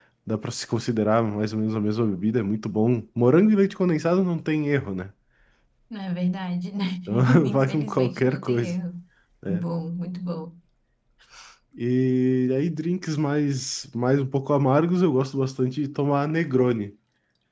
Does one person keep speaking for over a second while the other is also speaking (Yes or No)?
Yes